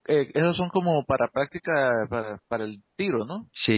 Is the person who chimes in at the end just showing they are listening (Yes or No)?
No